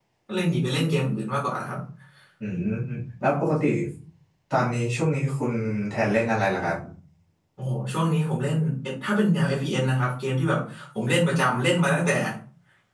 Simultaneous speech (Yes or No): No